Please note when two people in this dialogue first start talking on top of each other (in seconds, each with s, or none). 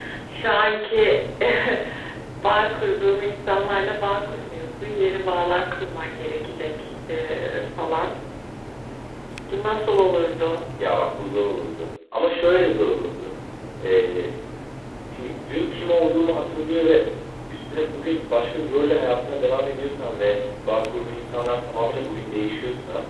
none